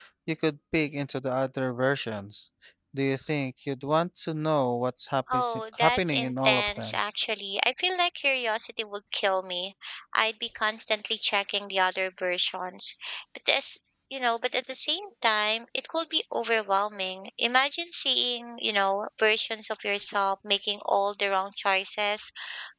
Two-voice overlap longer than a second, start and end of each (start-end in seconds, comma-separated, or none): 5.3-7.0